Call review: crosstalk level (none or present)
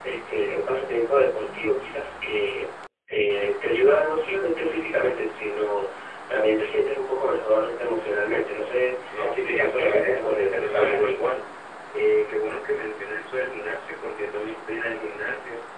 present